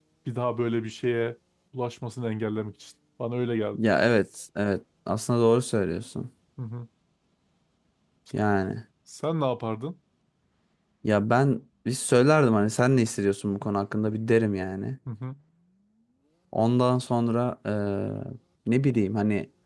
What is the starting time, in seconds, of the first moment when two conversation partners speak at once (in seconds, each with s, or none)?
none